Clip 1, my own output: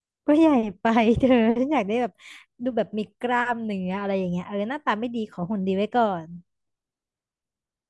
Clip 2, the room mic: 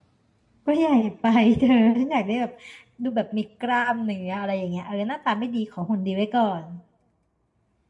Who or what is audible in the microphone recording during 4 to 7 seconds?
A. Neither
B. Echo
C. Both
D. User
B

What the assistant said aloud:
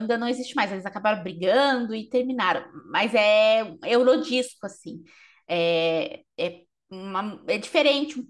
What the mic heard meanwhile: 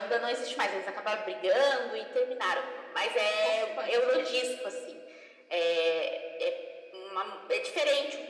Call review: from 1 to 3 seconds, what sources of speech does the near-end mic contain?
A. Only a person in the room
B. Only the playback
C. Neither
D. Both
B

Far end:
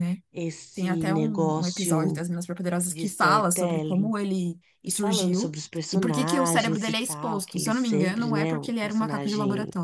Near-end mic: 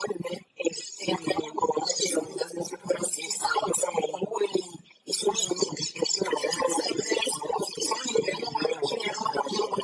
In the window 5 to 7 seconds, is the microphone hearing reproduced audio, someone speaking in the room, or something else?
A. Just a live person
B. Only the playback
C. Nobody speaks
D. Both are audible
B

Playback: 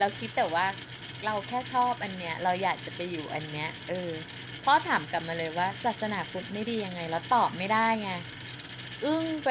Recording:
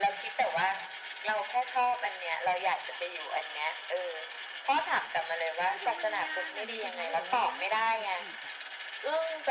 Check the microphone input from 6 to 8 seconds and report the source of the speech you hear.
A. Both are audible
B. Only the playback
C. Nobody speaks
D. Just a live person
A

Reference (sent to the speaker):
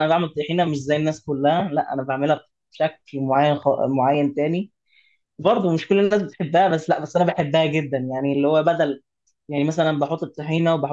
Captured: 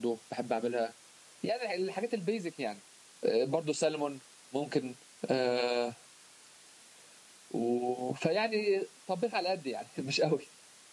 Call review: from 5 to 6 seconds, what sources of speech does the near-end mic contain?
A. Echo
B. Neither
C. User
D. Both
C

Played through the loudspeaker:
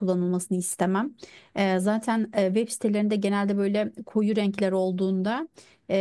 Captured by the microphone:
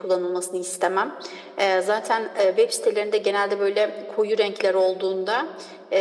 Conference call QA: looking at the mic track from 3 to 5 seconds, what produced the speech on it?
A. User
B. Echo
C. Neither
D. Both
B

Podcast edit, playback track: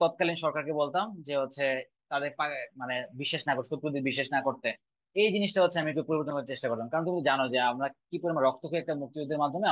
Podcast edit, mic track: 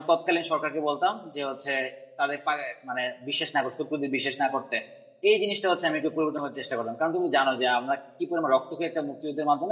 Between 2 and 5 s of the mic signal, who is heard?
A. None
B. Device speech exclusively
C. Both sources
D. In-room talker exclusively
B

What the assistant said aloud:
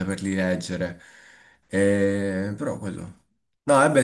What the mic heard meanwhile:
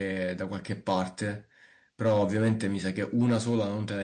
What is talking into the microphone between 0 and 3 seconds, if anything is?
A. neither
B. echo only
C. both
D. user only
D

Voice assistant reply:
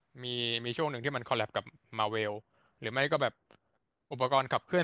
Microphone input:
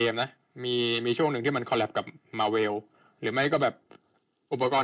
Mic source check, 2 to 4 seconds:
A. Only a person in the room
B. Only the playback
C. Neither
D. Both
B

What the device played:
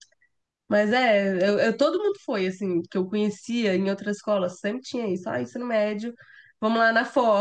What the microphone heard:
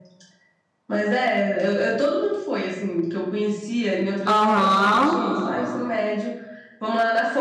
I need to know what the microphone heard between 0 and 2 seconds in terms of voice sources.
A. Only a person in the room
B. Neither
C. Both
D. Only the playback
D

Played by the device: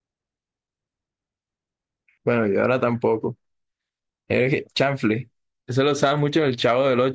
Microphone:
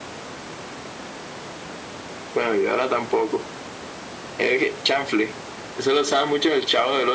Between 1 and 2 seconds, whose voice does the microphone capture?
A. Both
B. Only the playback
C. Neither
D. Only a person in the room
C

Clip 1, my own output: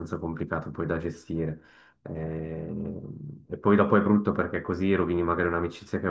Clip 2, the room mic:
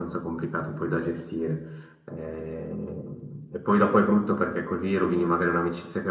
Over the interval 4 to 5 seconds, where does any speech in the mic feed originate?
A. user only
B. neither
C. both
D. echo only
D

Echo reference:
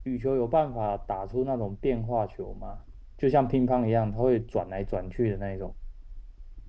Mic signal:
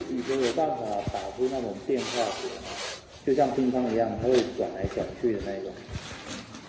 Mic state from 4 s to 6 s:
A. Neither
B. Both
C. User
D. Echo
D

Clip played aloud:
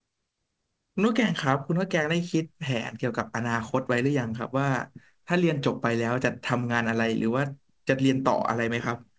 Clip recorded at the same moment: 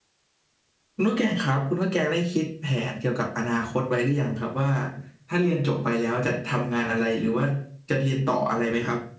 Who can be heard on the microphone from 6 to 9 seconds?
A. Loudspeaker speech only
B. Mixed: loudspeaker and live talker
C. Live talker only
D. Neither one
A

